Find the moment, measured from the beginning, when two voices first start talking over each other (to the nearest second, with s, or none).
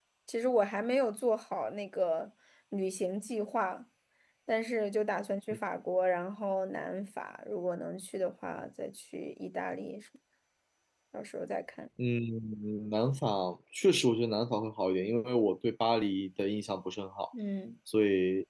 none